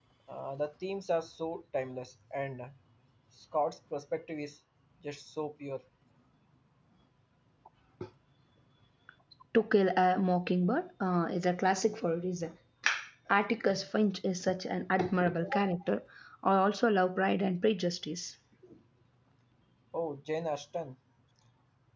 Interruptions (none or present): none